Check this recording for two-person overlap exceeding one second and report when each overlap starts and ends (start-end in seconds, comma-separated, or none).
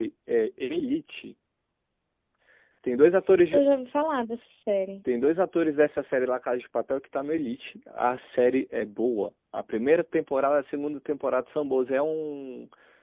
none